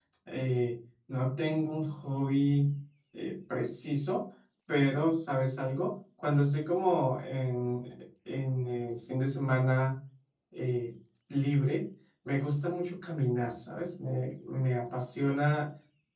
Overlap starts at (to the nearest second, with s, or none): none